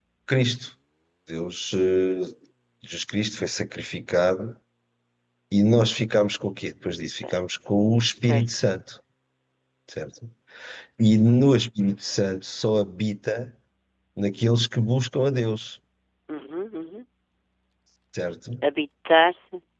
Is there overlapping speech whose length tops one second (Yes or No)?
No